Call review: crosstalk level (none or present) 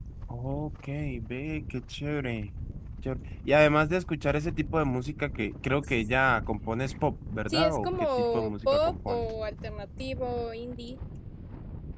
present